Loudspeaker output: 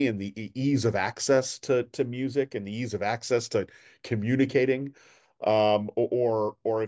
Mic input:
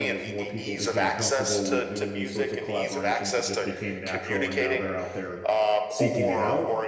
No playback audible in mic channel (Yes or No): No